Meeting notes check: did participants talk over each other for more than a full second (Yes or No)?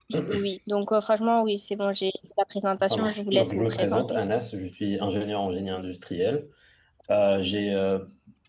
Yes